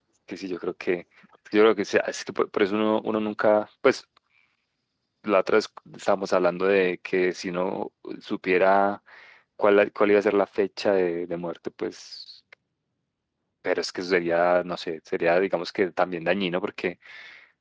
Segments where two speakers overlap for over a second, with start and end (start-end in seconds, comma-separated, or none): none